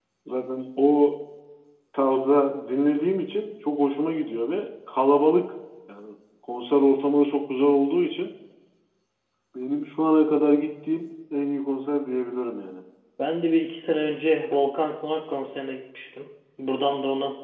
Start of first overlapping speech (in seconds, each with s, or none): none